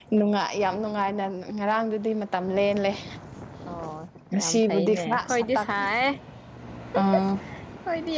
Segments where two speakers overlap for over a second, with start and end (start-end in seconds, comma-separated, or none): 4.4-5.7